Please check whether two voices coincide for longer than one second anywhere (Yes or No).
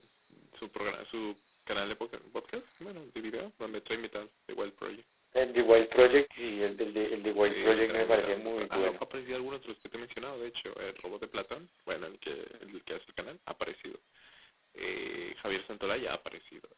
Yes